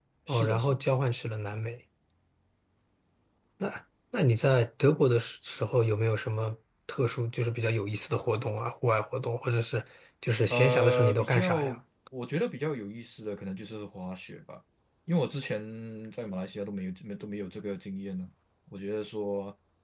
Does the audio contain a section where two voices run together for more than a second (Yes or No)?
Yes